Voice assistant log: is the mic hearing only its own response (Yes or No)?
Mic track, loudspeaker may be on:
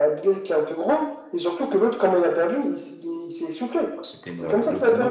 No